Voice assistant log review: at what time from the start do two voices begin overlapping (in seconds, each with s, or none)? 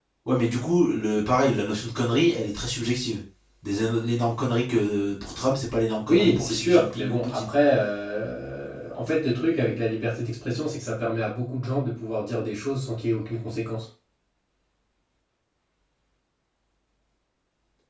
6.1 s